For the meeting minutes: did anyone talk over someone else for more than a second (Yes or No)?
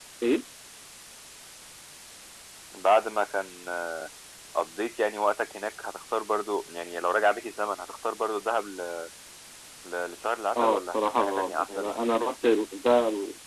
Yes